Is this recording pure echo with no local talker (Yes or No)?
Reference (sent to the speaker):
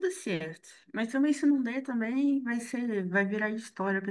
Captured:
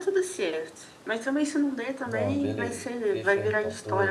No